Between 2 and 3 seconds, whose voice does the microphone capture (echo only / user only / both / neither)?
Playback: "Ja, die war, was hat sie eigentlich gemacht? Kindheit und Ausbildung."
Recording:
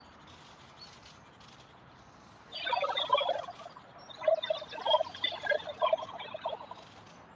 echo only